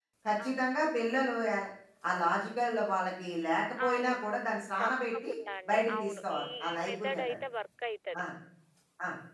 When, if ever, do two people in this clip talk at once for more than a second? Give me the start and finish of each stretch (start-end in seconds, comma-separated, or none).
5.7-7.2